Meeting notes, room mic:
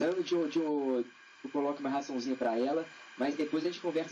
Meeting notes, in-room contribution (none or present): none